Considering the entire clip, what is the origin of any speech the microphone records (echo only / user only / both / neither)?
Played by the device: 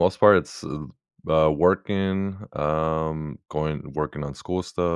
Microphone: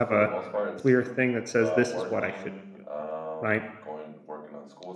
both